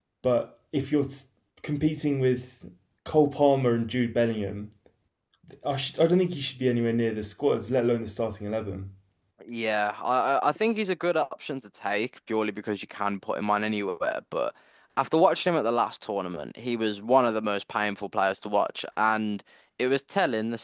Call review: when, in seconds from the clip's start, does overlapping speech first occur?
none

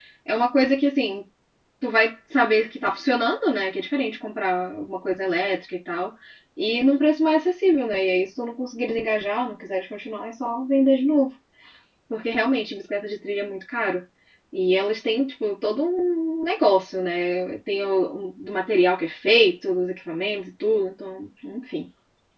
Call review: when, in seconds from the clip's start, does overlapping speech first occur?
none

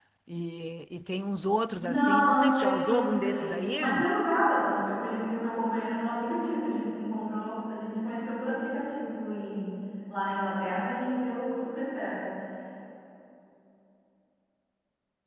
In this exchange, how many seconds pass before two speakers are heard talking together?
1.8 s

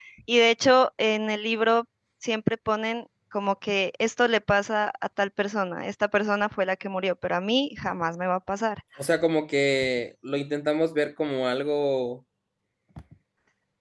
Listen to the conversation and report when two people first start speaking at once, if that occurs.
none

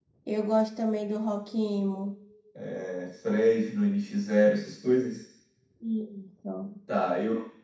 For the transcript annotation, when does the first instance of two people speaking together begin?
none

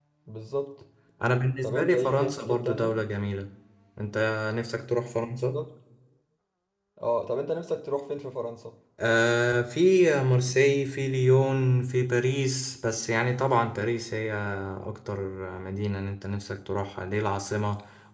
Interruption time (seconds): 1.6 s

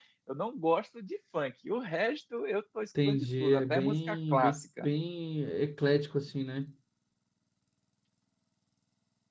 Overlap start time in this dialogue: 3.0 s

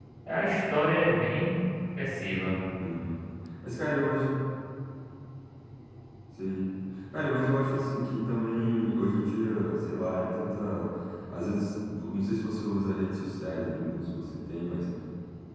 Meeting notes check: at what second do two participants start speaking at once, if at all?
none

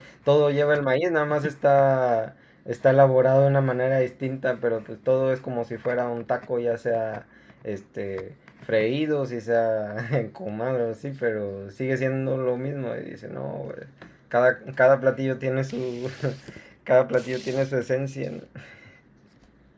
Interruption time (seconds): none

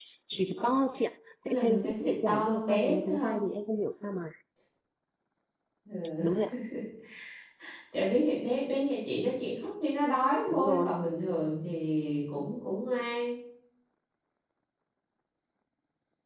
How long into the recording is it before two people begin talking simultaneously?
1.4 s

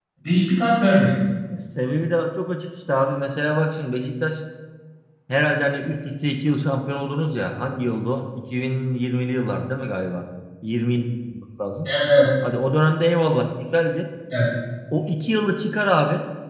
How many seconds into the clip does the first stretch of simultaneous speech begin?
none

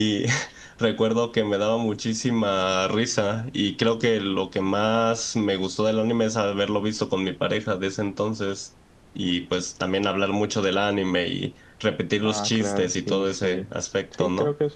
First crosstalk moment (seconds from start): 12.2 s

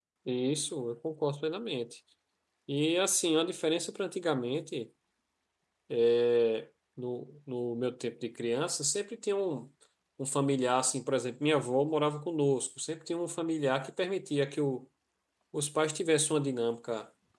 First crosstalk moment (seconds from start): none

